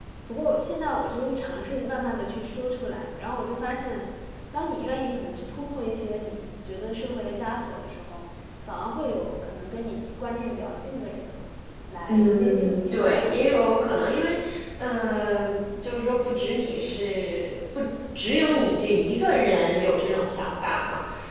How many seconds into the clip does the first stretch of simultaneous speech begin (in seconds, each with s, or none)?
12.1 s